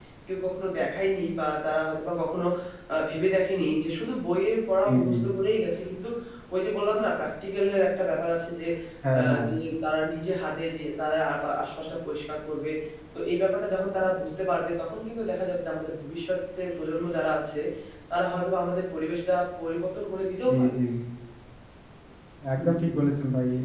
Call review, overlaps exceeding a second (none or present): none